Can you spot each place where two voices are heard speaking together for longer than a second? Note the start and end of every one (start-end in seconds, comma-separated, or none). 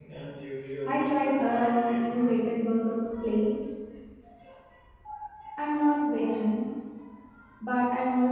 0.9-2.2